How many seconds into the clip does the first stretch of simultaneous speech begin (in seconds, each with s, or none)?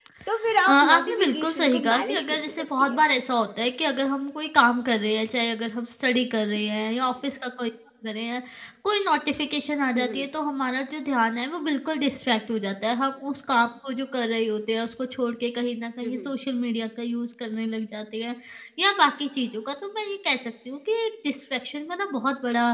0.7 s